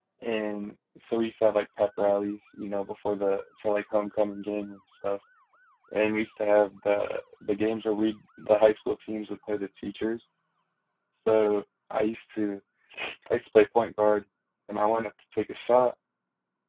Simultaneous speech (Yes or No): No